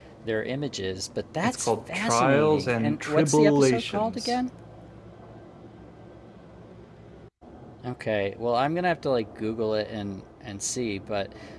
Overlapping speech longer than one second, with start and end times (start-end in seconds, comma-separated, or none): 1.4-4.4